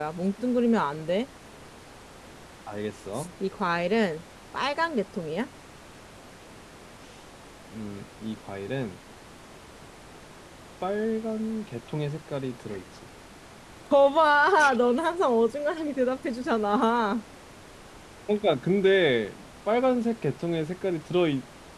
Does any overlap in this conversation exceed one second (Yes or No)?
No